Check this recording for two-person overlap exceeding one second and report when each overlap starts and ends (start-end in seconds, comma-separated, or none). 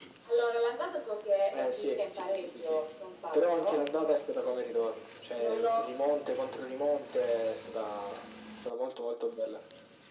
1.5-2.8